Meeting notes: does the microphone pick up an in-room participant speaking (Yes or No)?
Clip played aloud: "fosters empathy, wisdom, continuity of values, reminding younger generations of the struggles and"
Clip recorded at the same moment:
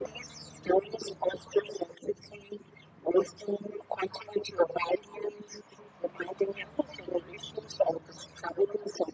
No